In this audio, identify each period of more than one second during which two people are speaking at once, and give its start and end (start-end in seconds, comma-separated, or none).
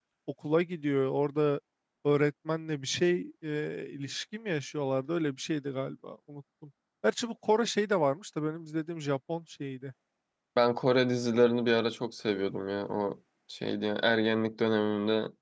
none